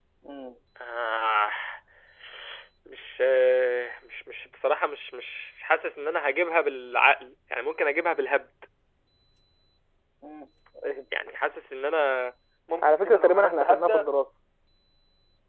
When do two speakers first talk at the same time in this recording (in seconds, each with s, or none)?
12.8 s